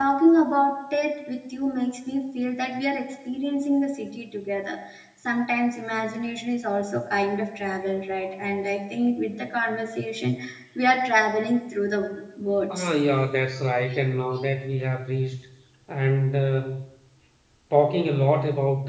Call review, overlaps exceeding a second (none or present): none